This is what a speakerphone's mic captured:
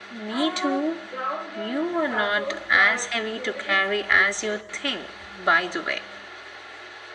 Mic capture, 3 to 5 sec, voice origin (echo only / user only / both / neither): both